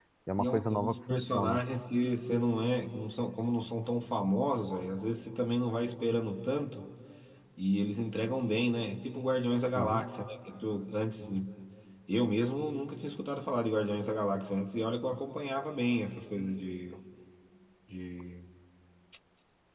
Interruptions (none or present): present